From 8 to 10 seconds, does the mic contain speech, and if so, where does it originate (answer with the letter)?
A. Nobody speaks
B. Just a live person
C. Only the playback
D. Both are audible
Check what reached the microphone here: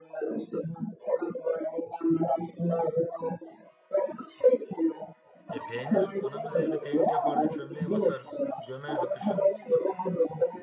D